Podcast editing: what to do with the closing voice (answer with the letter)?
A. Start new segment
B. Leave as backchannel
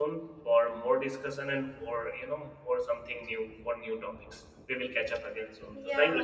A